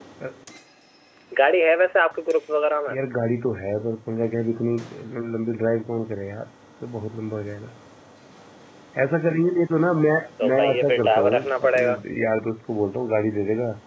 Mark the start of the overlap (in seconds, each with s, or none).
10.4 s